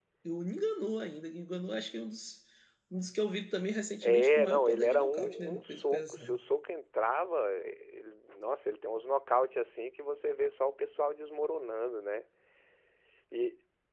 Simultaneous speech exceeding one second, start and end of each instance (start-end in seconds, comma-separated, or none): 4.0-6.4